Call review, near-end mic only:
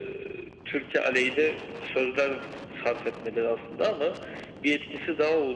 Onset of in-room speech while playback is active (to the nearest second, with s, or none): none